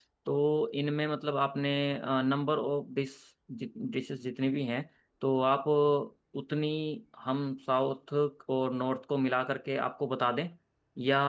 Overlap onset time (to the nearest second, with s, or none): none